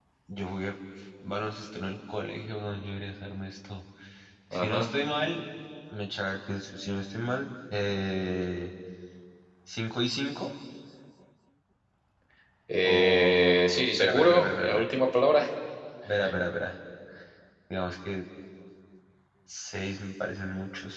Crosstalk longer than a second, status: present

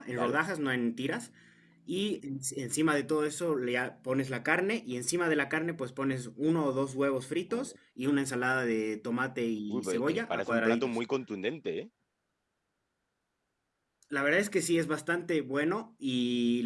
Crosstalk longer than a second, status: present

